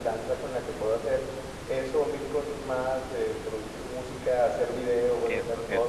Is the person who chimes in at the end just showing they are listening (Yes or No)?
No